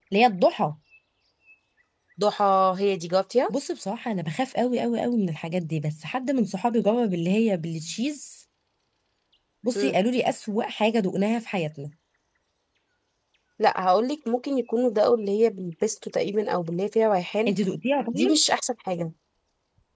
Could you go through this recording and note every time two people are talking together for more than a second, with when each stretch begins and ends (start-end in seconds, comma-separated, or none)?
none